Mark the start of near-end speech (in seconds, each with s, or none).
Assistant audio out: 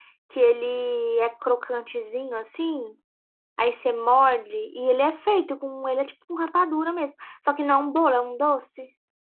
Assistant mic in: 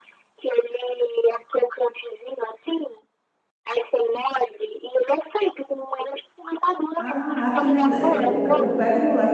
7.0 s